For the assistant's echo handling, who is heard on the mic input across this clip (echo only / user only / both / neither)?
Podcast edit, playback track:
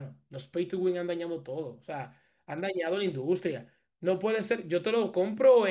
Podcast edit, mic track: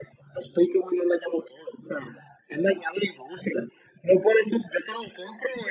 echo only